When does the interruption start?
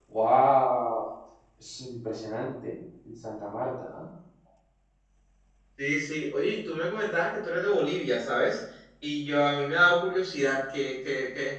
none

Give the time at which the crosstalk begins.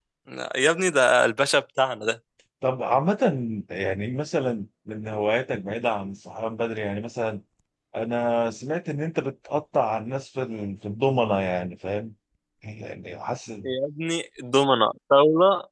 none

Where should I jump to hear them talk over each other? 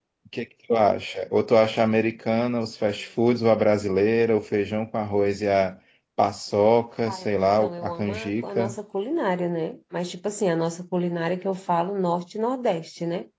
7.1 s

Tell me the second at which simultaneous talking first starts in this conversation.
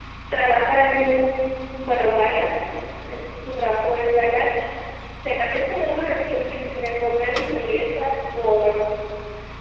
none

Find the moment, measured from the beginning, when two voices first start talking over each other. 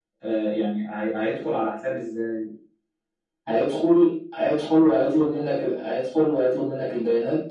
none

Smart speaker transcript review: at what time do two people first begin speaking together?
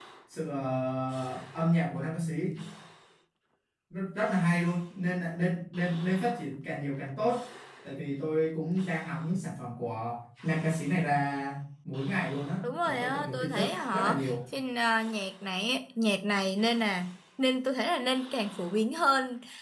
12.6 s

